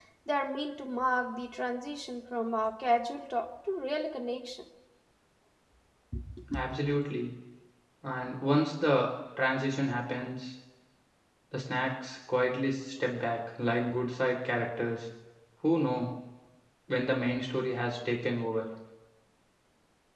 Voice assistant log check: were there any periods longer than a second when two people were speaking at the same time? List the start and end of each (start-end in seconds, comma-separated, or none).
none